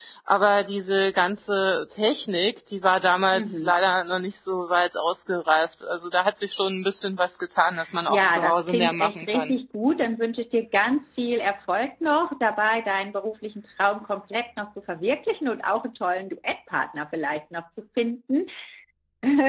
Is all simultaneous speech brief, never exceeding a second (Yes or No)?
No